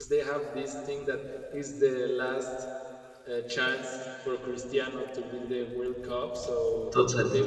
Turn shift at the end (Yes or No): No